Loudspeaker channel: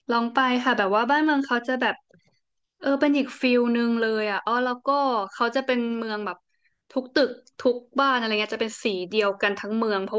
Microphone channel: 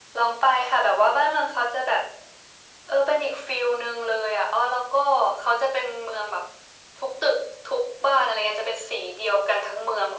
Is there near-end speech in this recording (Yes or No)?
No